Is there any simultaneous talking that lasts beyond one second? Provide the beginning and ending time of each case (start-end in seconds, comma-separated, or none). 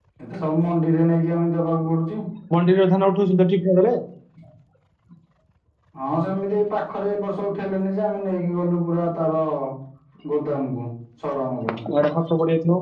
none